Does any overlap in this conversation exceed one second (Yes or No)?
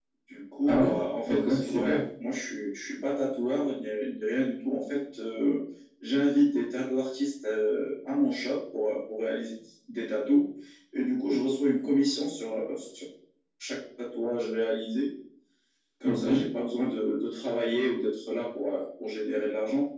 Yes